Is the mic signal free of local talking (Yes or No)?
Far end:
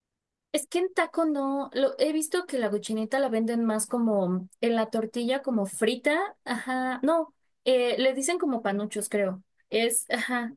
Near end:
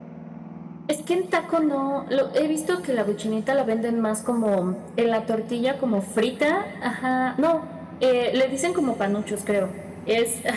Yes